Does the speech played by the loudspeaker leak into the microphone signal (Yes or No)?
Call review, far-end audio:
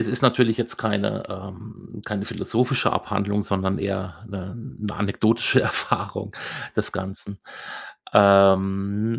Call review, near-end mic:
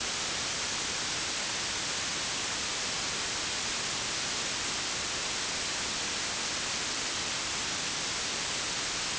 No